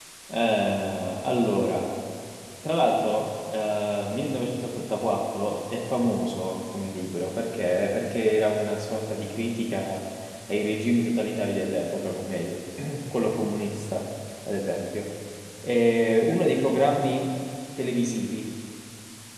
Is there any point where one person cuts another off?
No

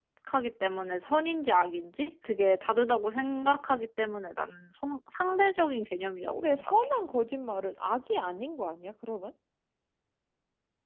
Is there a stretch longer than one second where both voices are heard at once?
No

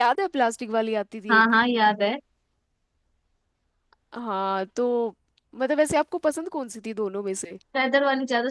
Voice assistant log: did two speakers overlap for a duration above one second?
No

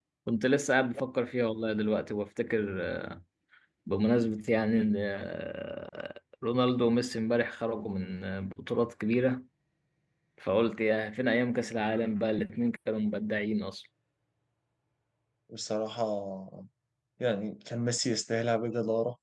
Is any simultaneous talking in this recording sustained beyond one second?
No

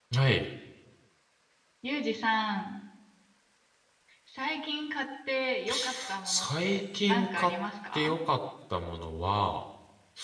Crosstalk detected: Yes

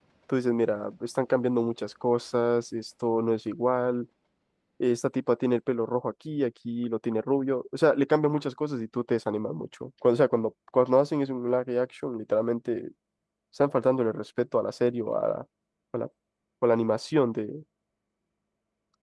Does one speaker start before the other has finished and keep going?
No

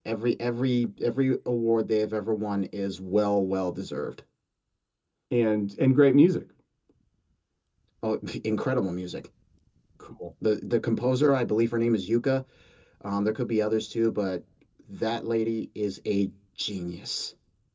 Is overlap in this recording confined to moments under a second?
Yes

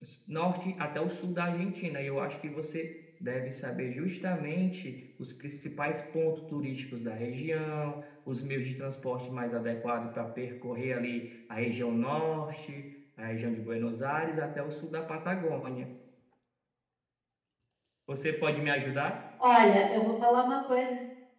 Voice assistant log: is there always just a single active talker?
Yes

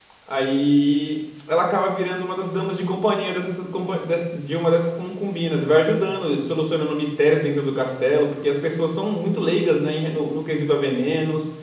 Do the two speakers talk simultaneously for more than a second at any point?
No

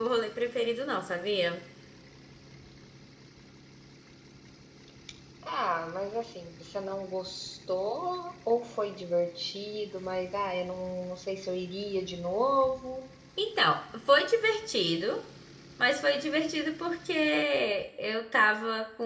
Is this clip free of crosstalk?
Yes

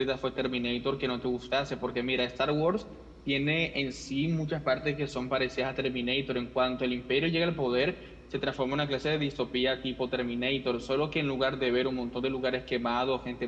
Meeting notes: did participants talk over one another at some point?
No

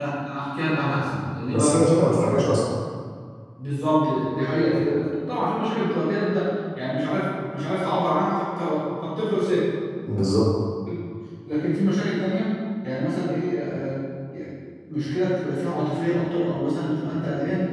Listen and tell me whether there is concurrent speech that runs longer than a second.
No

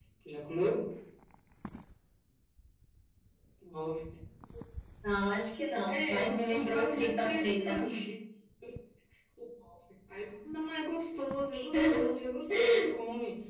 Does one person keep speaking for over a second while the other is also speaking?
Yes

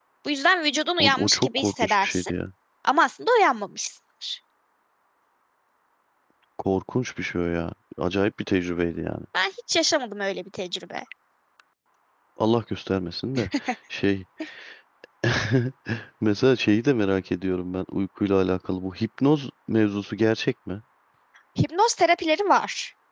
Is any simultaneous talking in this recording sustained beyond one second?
Yes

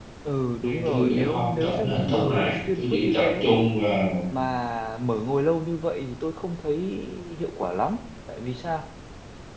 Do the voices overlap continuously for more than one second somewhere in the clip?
Yes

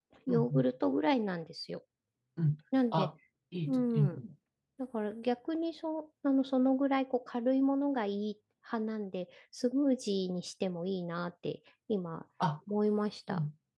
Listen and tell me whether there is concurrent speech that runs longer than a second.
No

